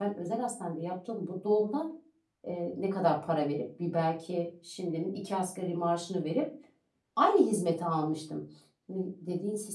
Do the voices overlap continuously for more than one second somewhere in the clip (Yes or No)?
No